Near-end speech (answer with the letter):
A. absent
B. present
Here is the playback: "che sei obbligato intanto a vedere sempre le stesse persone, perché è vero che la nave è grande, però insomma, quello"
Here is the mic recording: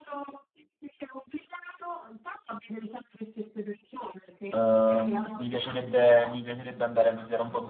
B